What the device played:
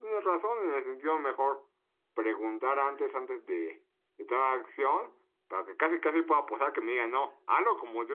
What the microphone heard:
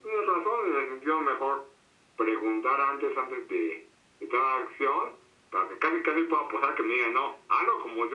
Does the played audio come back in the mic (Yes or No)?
Yes